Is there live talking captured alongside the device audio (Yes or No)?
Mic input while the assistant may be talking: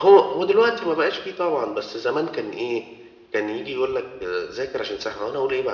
No